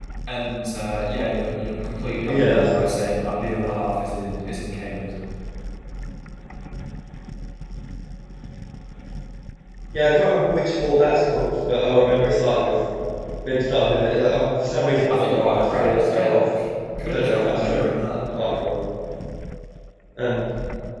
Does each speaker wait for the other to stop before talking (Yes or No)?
No